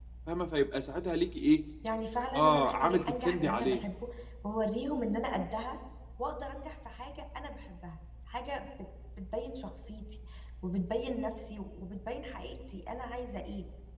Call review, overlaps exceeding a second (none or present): present